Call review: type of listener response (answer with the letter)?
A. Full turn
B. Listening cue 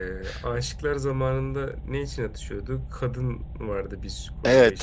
A